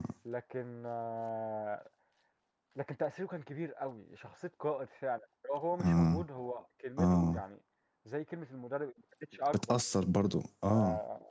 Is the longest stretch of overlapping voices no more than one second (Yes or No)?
Yes